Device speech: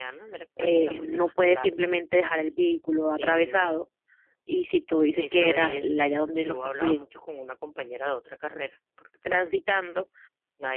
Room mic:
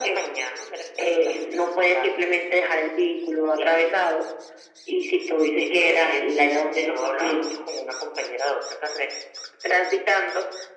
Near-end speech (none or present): none